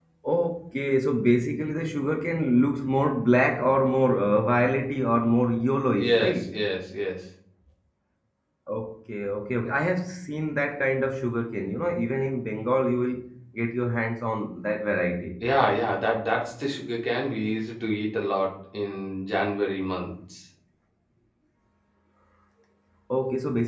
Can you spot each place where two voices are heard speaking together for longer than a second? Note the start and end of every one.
none

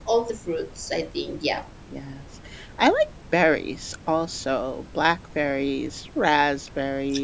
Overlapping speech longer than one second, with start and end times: none

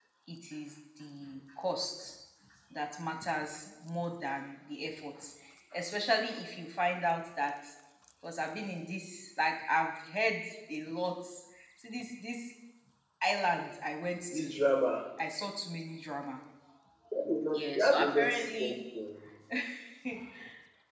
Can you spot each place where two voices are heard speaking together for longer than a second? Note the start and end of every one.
17.5-18.8

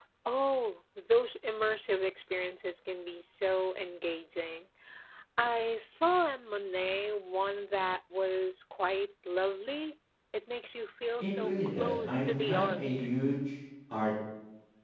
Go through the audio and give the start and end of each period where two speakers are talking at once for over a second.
11.2-12.8

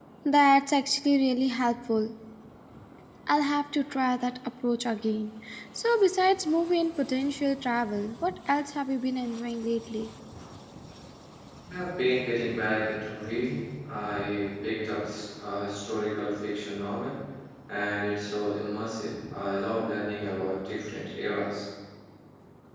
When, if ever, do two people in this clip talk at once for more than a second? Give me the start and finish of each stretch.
none

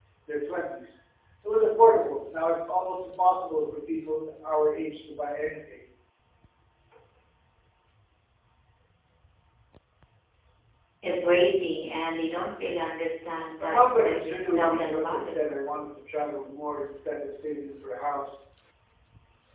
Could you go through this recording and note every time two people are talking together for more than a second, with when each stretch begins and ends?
13.6-15.3

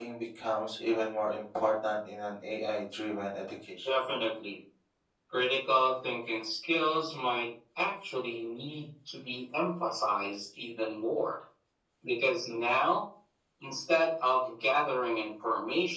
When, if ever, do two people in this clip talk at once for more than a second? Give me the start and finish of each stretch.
none

